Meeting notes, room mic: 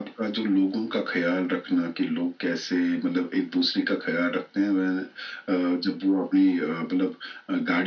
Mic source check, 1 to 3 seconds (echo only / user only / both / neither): echo only